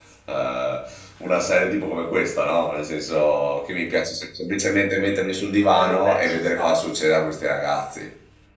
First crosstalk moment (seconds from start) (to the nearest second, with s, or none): 6 s